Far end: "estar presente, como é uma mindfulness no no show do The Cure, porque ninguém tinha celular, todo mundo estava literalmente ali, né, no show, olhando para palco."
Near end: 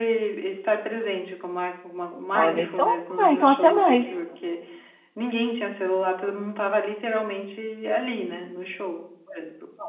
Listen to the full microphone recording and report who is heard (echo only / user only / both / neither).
both